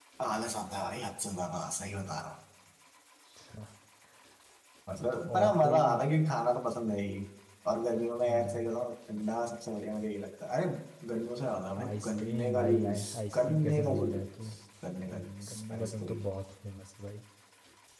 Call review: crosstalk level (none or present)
present